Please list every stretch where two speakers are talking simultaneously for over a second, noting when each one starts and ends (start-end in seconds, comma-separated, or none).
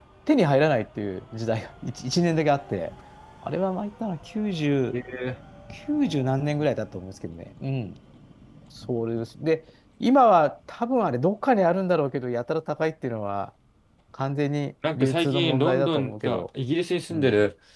14.9-16.4